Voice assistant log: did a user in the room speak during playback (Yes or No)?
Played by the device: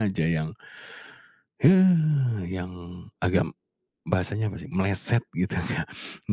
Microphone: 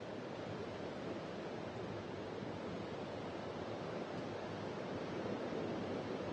No